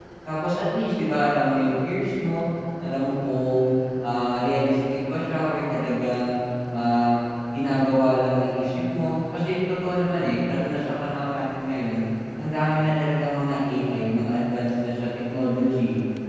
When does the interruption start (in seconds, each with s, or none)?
none